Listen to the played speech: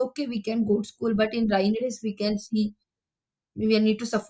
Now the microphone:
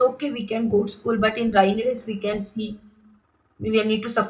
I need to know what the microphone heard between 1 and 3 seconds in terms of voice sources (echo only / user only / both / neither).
echo only